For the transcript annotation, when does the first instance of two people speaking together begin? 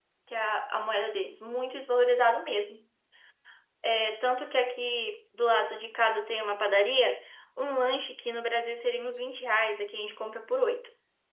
none

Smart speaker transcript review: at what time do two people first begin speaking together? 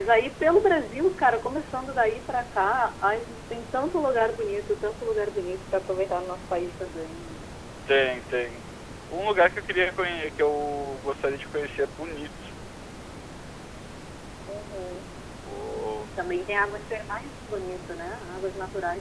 none

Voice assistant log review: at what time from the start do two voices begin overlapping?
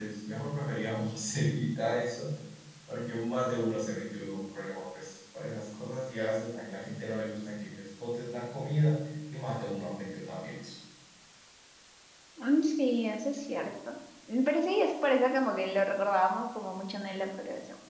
none

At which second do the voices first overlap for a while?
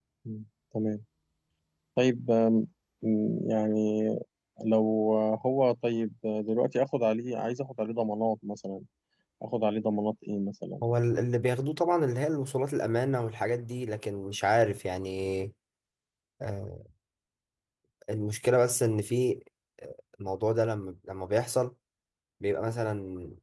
none

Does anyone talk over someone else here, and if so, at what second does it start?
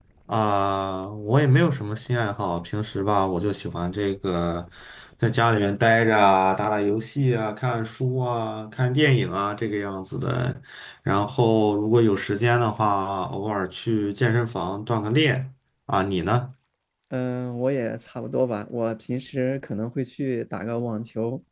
none

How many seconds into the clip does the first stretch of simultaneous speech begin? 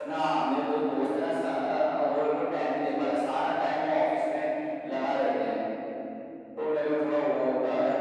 none

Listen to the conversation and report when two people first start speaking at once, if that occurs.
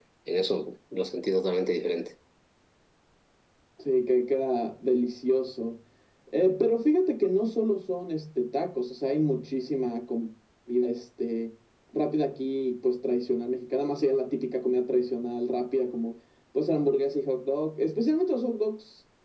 none

